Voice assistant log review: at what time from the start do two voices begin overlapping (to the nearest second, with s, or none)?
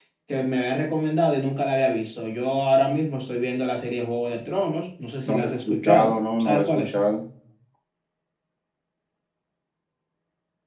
5 s